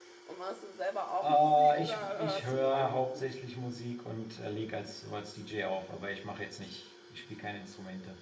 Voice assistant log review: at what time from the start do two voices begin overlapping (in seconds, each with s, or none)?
1.2 s